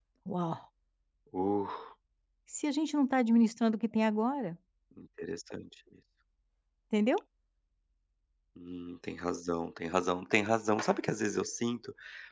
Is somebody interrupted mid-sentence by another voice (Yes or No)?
No